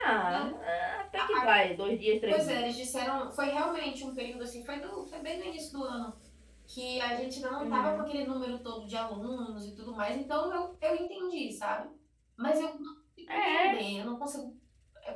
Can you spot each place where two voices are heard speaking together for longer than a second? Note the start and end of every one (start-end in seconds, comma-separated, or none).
none